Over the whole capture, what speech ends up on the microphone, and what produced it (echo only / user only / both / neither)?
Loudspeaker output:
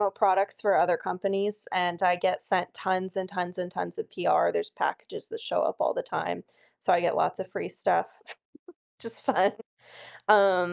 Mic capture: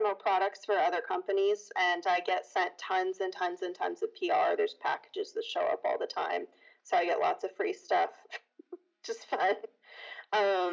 echo only